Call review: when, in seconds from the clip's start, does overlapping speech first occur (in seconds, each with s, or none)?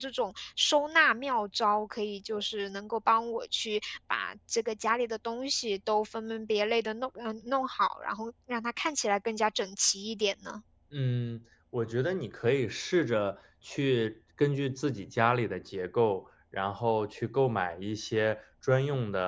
none